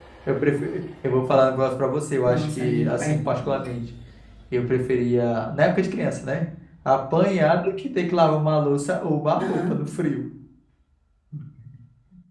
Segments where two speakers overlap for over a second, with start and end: 2.2-3.6

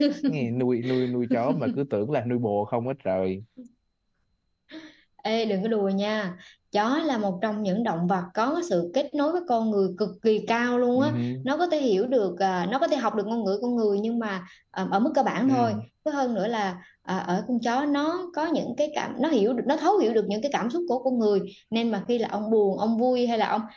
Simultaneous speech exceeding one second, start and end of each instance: none

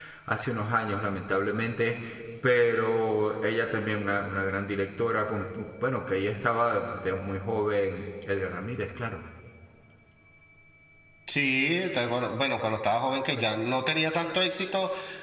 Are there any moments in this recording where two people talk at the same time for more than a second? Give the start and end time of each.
none

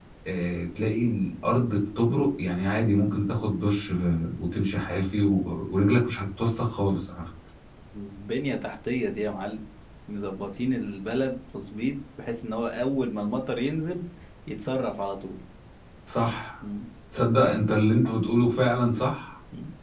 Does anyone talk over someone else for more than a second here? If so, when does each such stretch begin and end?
none

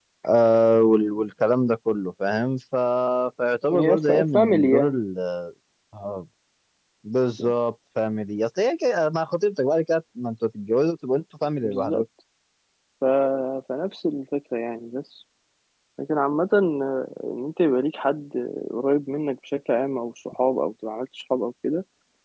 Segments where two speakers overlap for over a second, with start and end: 3.7-5.0

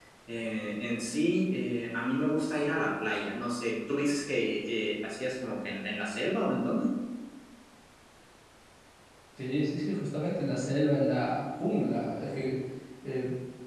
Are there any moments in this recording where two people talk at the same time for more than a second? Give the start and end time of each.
none

